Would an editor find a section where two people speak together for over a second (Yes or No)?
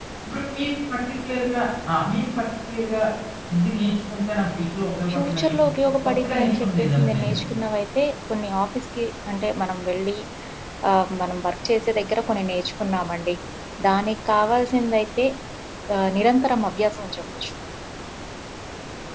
Yes